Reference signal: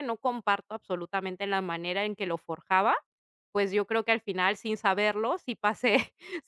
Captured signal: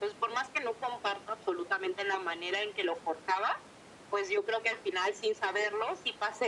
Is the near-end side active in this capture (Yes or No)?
No